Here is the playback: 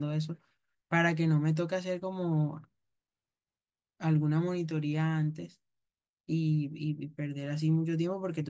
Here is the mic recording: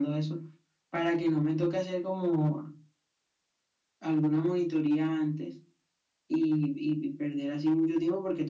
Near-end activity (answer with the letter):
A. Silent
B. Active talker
A